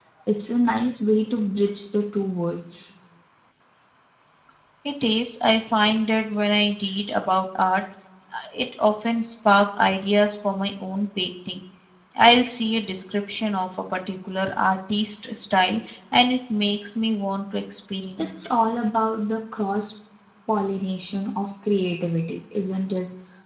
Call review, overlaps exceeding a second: none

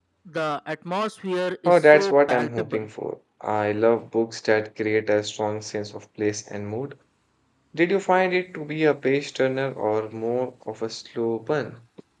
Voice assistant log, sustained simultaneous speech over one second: present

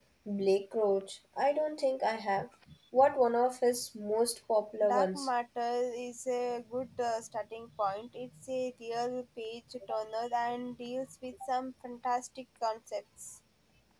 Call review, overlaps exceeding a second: none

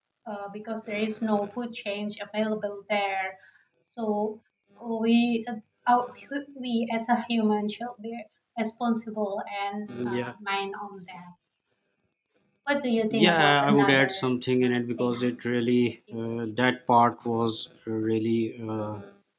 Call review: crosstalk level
present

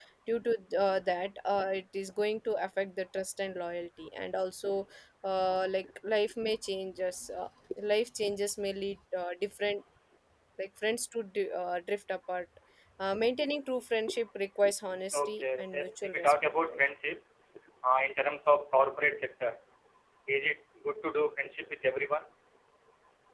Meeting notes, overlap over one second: present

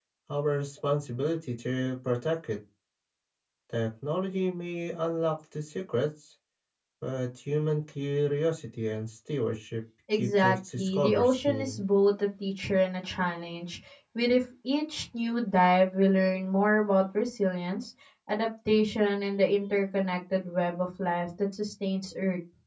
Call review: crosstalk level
present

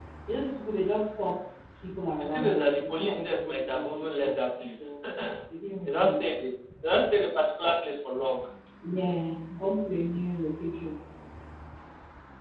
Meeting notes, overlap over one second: present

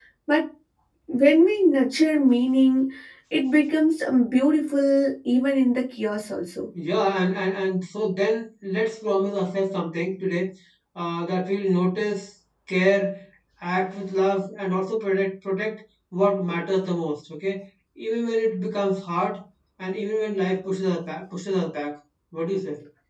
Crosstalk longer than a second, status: none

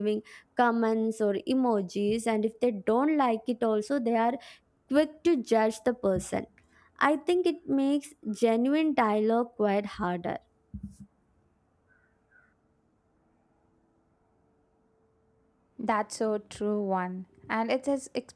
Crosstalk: none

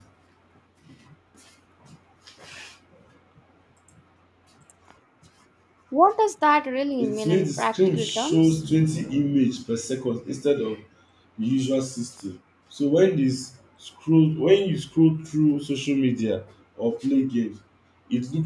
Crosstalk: present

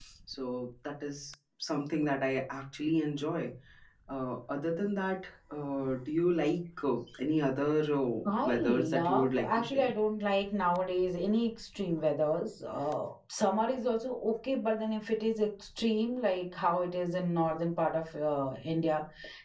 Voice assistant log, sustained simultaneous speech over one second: present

